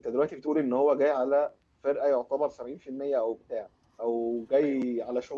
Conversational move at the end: listening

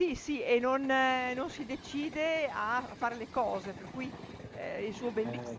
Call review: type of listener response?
listening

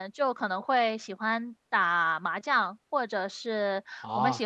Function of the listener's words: listening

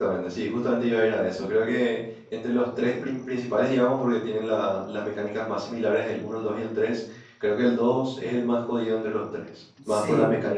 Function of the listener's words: taking over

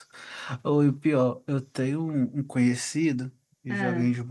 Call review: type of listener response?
listening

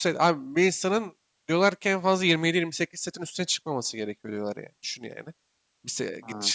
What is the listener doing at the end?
listening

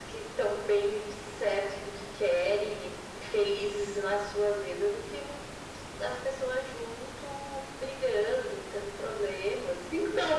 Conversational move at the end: taking over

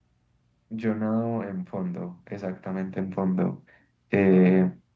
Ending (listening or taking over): listening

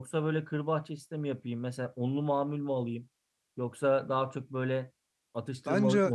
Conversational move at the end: listening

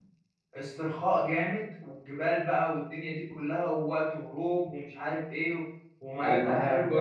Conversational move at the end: taking over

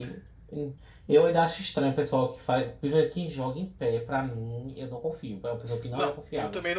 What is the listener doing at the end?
taking over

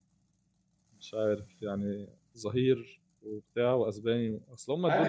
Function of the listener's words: taking over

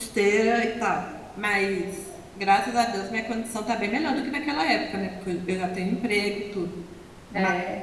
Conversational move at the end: listening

